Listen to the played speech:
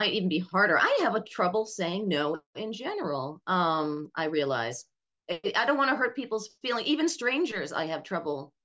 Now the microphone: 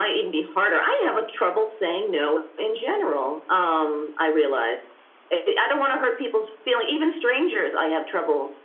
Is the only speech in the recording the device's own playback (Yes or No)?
Yes